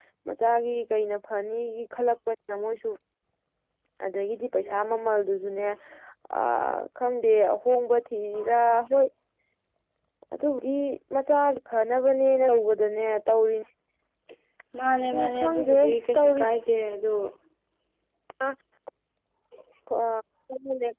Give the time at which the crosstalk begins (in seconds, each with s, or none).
15.1 s